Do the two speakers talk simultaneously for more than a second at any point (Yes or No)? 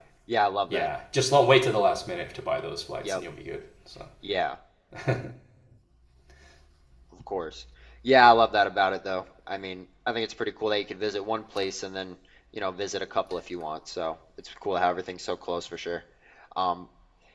No